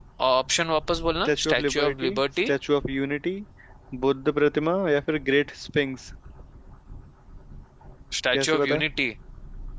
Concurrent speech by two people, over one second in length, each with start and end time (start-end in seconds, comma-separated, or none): 1.2-2.5